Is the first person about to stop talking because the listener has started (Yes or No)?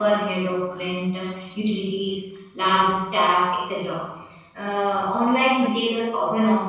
No